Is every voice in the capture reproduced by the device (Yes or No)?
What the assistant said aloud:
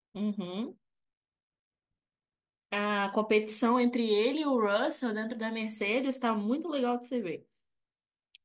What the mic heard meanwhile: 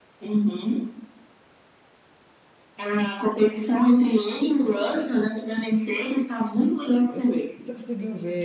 No